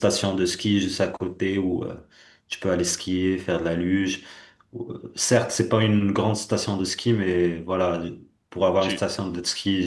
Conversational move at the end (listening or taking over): listening